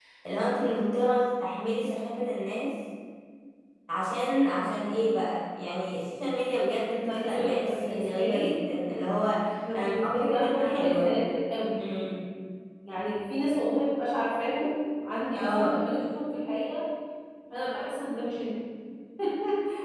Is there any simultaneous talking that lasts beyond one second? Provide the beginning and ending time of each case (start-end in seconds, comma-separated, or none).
7.0-8.5, 9.9-11.1